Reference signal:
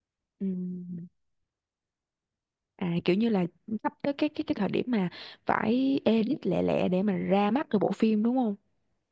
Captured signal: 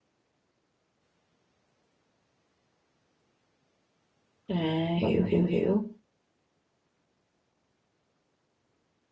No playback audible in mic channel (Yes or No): Yes